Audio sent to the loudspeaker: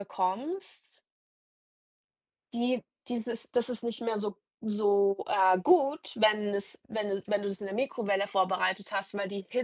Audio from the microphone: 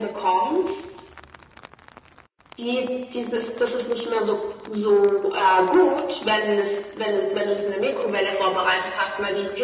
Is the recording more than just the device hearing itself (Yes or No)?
No